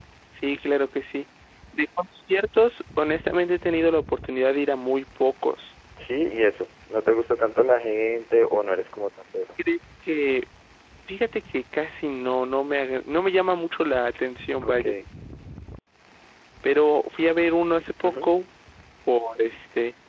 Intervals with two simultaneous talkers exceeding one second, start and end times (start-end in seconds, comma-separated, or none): none